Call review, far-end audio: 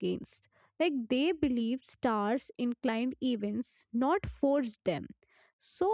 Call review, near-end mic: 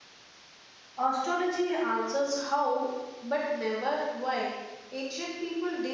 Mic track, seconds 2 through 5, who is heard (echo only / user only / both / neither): user only